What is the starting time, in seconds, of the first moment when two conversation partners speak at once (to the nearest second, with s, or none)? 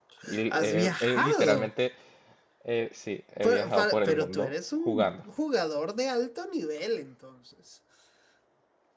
1 s